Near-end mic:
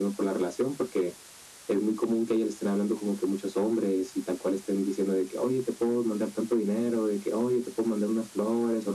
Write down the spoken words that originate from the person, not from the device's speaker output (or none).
none